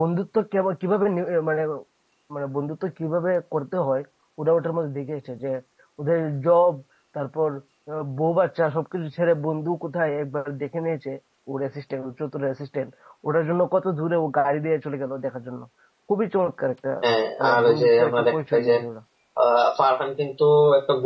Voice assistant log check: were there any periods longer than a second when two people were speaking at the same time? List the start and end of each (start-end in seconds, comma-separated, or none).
17.4-18.7